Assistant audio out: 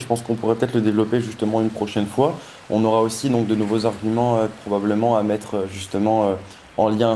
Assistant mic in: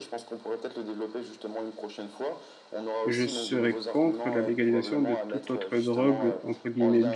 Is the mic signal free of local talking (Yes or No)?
No